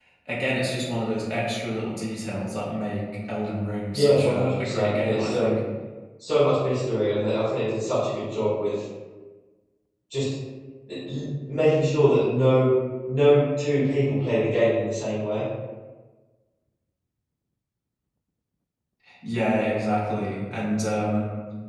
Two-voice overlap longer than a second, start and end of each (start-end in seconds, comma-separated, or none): 3.9-5.6